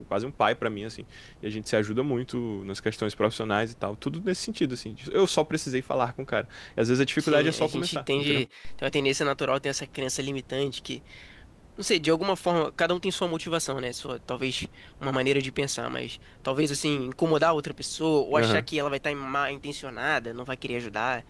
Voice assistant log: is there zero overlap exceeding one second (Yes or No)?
No